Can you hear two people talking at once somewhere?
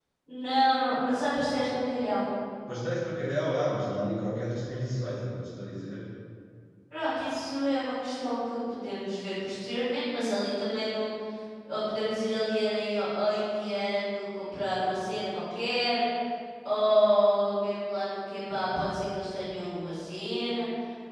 No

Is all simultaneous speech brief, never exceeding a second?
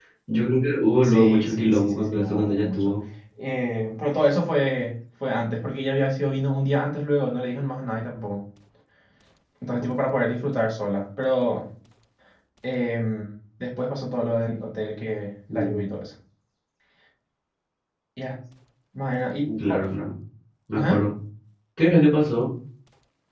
No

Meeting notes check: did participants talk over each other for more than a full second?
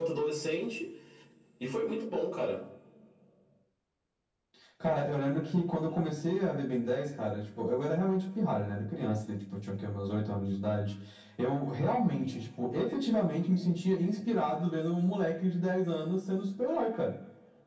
No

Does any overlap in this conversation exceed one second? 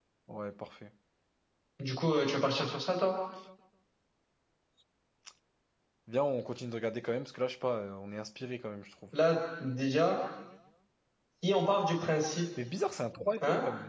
No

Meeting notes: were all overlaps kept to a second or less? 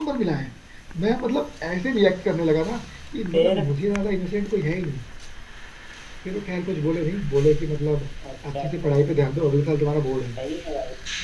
Yes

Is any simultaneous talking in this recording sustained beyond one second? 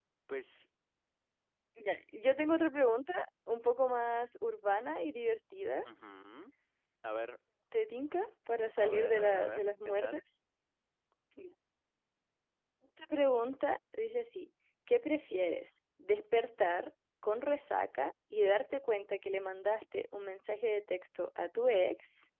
Yes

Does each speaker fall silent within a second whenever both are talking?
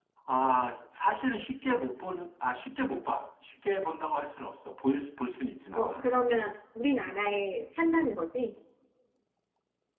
Yes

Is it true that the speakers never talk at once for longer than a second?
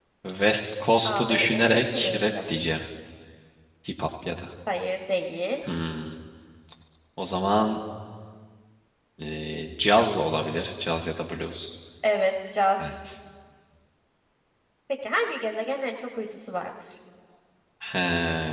No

